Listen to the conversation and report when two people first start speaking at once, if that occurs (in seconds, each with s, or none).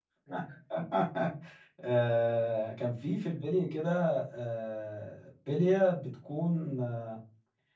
none